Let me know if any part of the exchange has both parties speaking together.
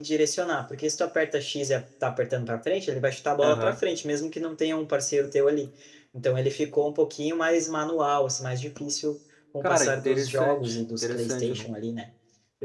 Yes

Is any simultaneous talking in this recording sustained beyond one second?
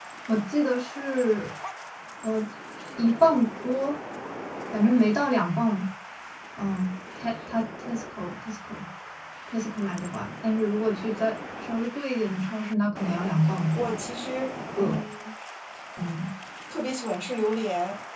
No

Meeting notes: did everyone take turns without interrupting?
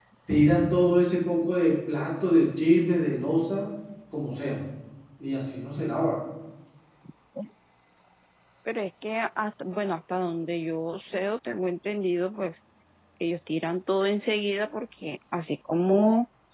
Yes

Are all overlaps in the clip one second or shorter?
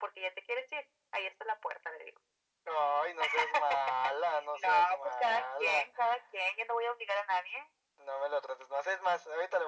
No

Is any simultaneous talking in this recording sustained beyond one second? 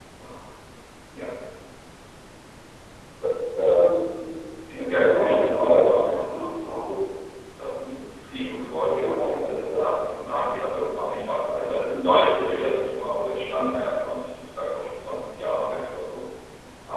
Yes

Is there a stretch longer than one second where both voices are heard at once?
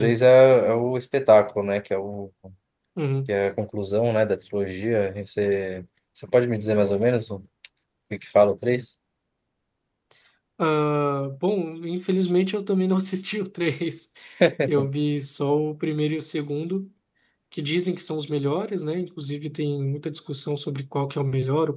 No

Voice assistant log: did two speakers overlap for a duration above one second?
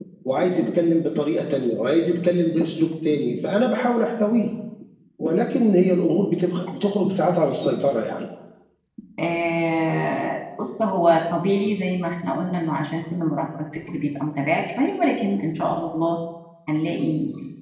No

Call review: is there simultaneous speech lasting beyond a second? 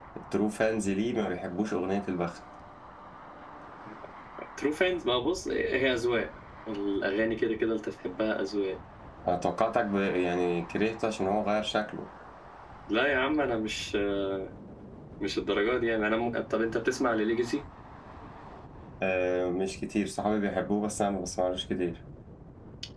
No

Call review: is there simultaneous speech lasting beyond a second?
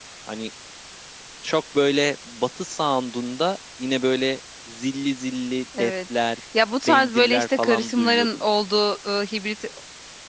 Yes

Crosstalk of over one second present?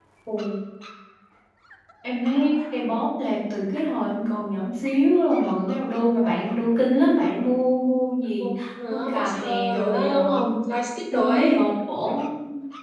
Yes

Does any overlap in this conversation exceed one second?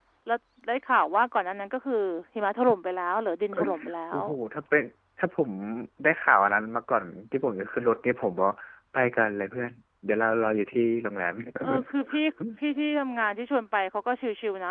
No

